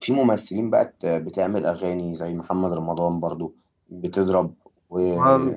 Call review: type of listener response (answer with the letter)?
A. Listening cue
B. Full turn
A